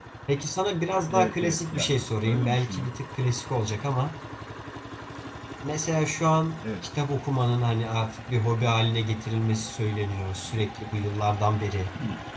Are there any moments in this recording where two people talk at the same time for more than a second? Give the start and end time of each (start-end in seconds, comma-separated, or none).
1.1-2.9